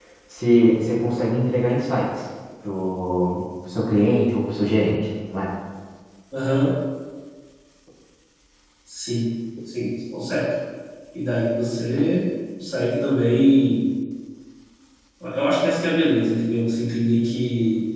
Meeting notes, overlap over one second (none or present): none